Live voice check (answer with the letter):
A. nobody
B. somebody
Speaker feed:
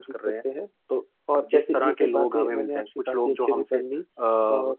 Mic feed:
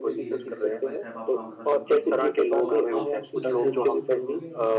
B